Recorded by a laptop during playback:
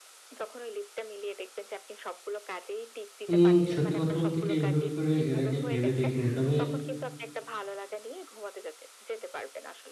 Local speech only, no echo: উম সত্যি কথা বলতে কি এইভাবে করে এর আগে ভেবে দেখিনি তবে,

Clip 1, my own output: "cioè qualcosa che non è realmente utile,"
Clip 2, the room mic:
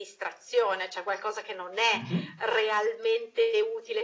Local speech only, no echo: Mh-mh.

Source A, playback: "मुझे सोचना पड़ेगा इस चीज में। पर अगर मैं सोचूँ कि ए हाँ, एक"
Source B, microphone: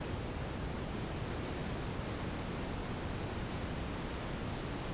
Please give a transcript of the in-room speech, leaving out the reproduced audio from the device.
none

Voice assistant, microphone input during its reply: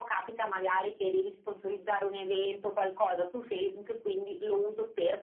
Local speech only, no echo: none

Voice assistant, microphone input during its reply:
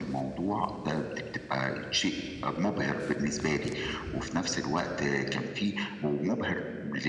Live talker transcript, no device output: none

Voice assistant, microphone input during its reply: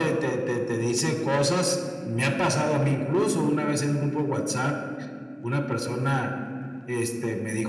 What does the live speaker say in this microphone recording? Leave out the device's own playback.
none

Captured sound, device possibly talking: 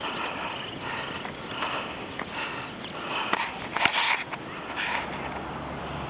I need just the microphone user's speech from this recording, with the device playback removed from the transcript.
none

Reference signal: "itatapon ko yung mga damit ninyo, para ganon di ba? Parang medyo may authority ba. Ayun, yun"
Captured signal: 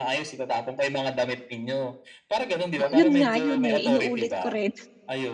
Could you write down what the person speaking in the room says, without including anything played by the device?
Oh yun nga, yun eh, inuulit ko rin

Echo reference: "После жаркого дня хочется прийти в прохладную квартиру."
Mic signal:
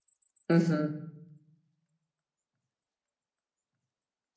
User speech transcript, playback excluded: Мгм.

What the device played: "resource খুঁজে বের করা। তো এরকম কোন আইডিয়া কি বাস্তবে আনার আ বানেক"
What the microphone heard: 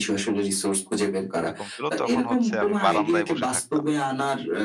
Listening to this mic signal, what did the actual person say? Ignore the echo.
এরকম ছিল তখন হচ্ছে আমি বারান্দায় বসে থাকতাম।

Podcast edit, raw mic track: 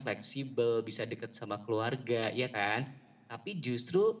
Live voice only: none

